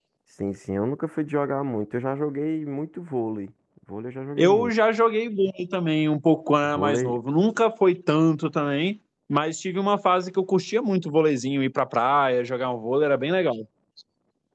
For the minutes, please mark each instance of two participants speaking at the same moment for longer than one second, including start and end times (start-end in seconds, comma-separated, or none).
none